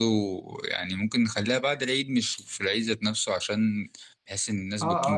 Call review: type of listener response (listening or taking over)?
taking over